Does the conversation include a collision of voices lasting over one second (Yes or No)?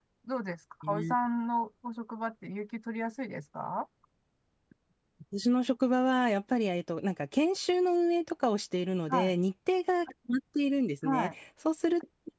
No